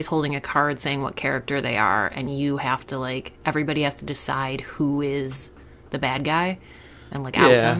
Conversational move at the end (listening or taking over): taking over